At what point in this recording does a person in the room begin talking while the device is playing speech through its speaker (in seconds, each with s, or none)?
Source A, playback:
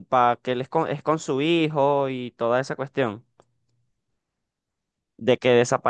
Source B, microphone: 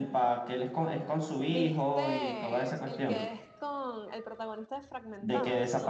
1.5 s